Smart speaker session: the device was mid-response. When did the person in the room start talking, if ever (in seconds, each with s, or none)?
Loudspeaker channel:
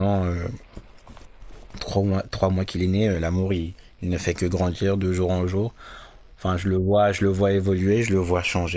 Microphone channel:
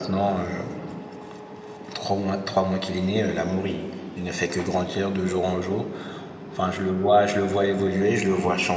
none